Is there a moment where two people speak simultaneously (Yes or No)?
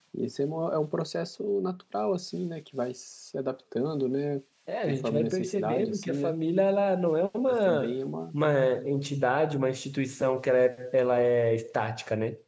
Yes